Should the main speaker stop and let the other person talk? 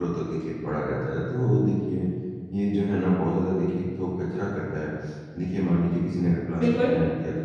No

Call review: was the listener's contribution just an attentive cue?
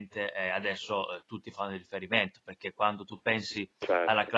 Yes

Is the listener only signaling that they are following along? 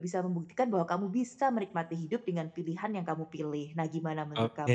No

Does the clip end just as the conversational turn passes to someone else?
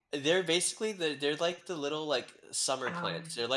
No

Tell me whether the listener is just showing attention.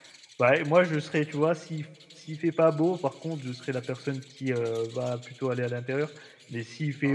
Yes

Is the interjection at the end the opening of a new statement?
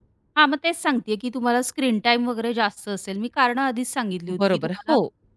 Yes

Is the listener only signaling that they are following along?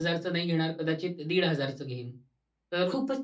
Yes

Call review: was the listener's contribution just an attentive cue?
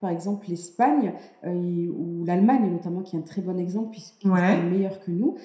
Yes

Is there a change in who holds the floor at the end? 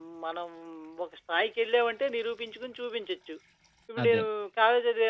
No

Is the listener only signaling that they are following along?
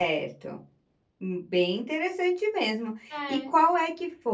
Yes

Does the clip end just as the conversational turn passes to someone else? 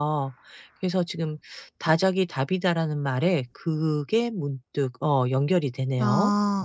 Yes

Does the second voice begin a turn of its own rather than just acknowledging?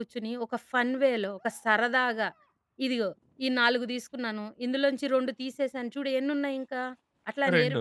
No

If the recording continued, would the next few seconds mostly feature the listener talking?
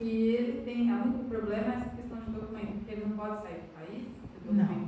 Yes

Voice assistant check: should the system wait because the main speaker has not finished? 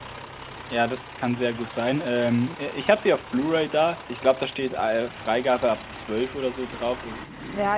No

